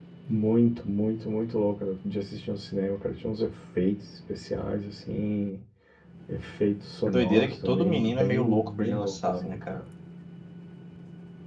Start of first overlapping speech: 7 s

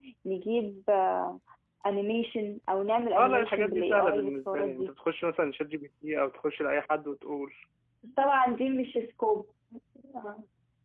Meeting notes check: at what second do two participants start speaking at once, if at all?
3 s

